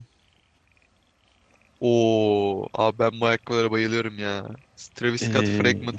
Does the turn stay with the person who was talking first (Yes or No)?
Yes